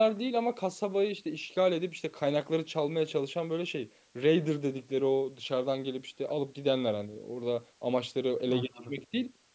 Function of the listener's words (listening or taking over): listening